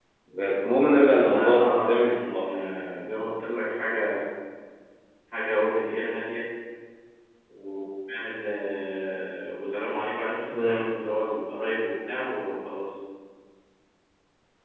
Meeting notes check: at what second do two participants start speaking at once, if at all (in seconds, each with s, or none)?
1.2 s